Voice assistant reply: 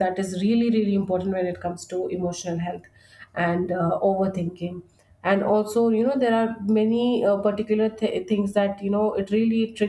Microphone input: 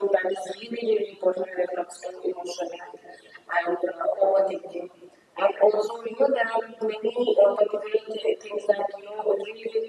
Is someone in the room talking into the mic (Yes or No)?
No